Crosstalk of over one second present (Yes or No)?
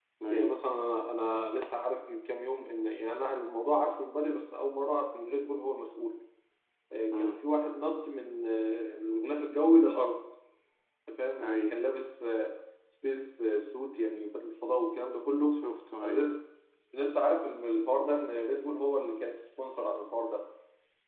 No